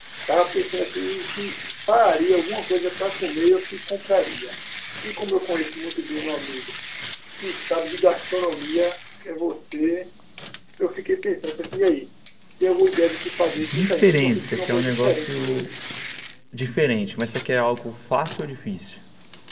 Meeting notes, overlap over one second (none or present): present